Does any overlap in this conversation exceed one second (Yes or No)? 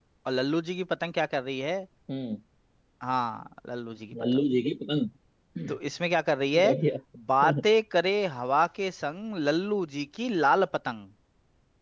No